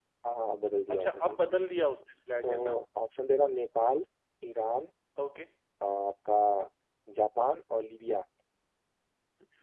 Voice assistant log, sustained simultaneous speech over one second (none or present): none